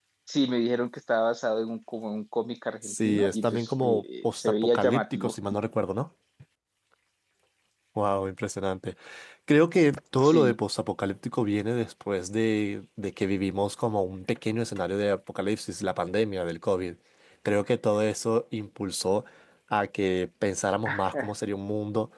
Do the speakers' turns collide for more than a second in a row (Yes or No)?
Yes